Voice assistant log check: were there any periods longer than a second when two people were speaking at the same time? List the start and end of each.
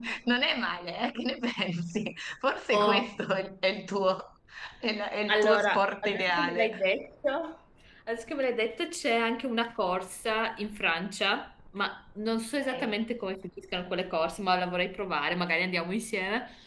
5.3-6.7

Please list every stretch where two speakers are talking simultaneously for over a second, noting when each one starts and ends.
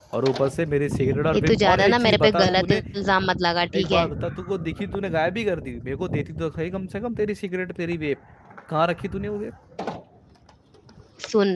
1.3-2.8

